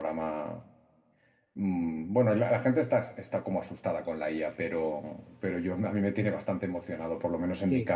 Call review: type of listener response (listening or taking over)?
listening